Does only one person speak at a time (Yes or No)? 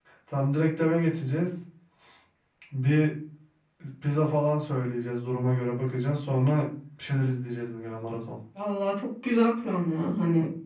Yes